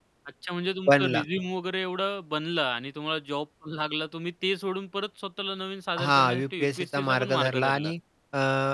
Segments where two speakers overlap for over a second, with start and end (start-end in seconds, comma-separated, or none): 6.0-7.9